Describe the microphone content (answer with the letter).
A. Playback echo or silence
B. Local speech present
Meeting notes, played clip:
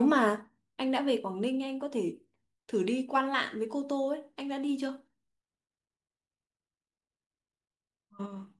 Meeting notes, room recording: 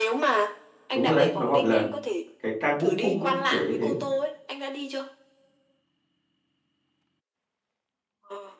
B